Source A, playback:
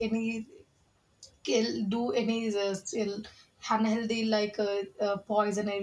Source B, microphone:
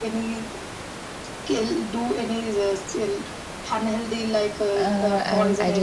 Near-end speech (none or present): present